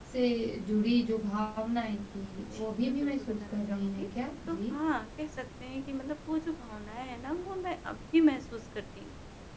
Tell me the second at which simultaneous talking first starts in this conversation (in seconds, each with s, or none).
2.5 s